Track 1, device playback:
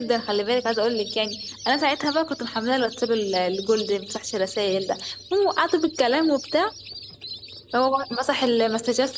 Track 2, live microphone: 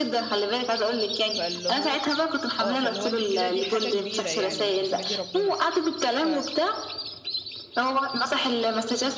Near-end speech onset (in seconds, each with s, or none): 1.3 s